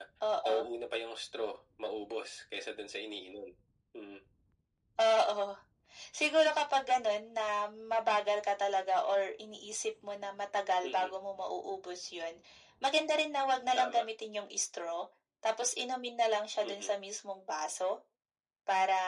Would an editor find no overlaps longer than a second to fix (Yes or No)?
Yes